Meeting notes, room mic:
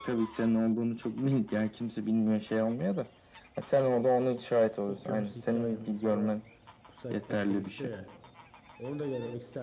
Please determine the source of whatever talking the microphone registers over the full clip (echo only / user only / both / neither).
both